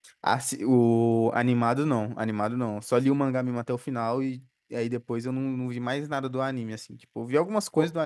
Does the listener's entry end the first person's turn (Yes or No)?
No